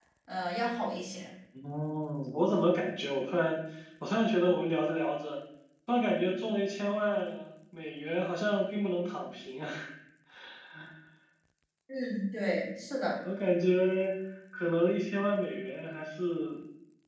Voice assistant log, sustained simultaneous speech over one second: none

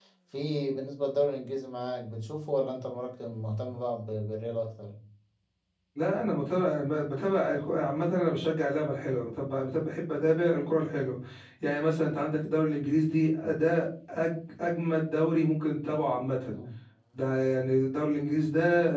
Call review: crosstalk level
none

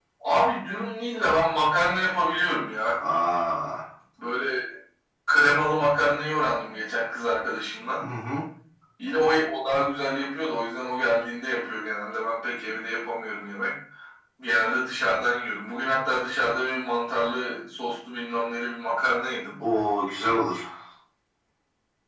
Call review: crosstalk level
none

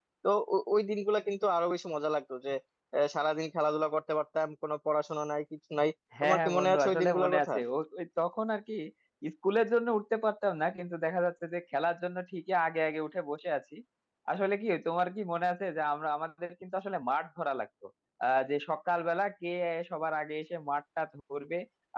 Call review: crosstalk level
present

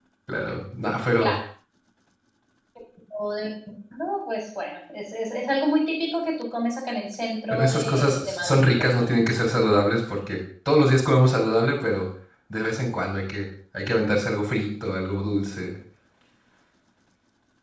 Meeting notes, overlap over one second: present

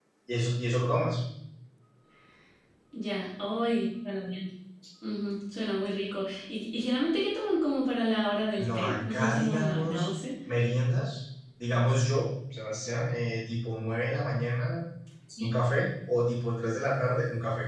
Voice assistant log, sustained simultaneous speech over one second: present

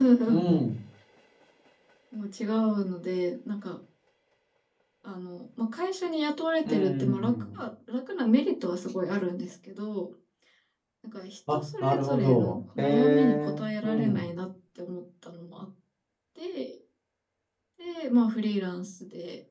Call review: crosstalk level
present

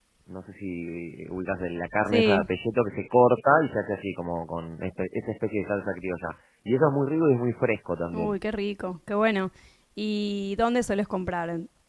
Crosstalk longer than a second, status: none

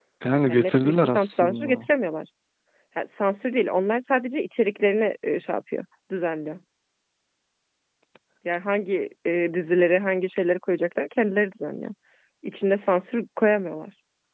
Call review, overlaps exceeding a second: present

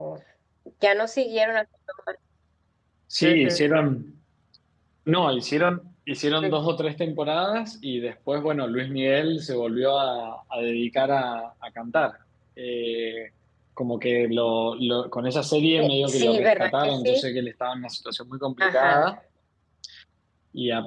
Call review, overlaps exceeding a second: present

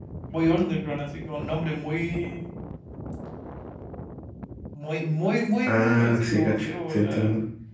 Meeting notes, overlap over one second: present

